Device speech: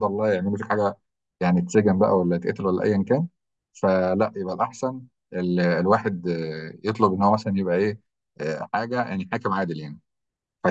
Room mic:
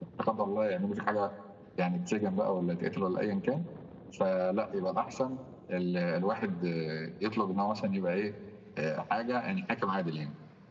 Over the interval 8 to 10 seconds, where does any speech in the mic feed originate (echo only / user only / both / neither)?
echo only